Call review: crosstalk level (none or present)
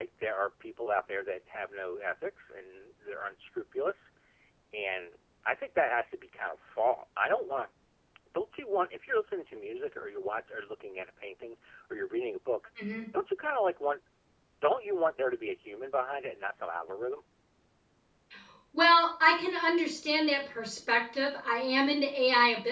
none